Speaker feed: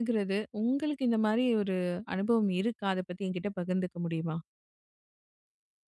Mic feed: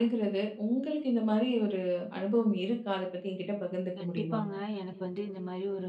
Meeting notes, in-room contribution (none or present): present